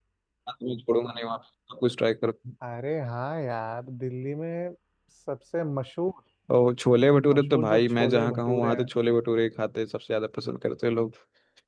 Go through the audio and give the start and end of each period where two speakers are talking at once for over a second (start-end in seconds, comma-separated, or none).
7.3-8.9